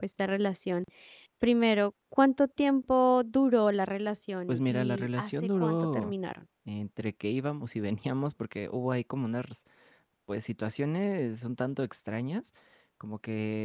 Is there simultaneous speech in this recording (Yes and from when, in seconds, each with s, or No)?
Yes, from 4.5 s